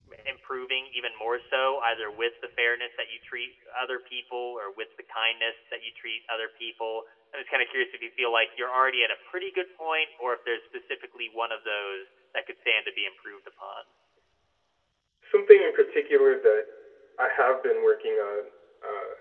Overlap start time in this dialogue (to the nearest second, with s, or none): none